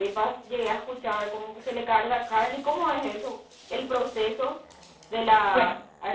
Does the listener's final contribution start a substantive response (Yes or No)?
Yes